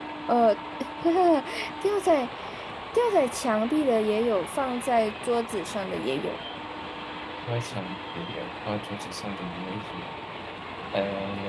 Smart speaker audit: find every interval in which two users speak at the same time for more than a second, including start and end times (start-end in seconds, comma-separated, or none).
none